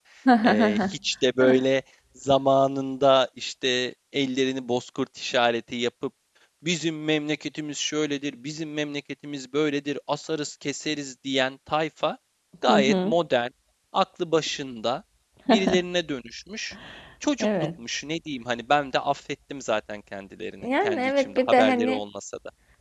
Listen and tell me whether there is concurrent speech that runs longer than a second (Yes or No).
Yes